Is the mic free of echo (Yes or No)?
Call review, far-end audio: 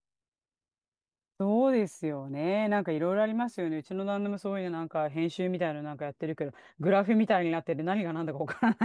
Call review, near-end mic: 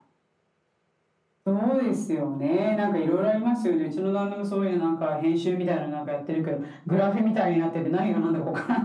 No